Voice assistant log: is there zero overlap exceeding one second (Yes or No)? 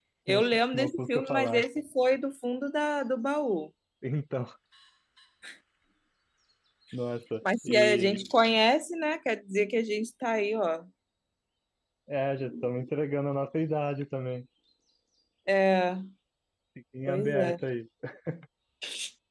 No